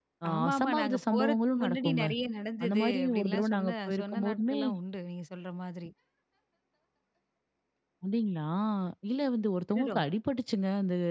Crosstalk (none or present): present